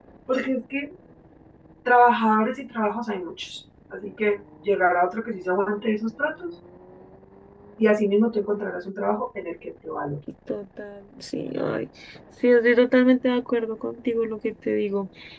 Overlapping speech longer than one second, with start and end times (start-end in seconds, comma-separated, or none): none